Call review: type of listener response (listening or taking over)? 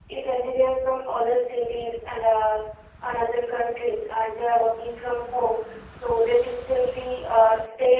listening